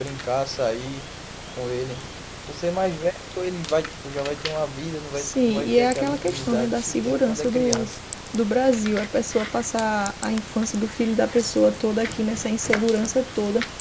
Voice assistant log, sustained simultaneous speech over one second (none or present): present